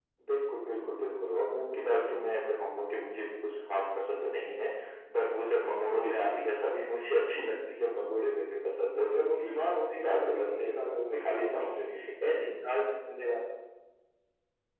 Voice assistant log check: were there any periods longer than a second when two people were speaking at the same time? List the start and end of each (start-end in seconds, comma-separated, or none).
9.9-11.8